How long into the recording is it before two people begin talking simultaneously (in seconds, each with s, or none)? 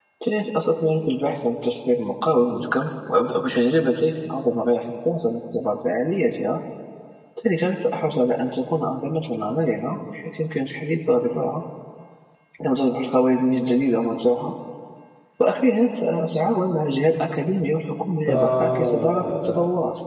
18.3 s